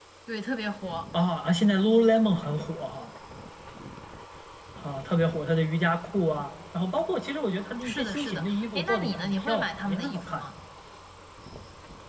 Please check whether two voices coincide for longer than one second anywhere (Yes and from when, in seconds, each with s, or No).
Yes, from 7.8 s